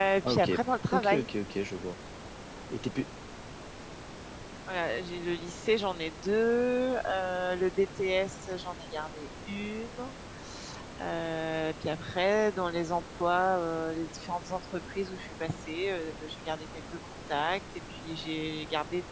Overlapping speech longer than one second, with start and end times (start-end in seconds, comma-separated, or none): none